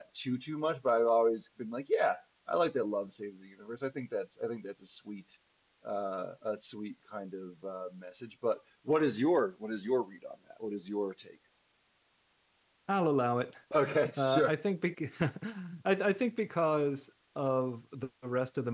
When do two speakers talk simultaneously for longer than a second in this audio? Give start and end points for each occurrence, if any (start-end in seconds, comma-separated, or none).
none